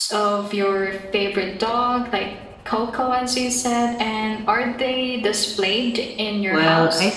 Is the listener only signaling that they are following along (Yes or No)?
No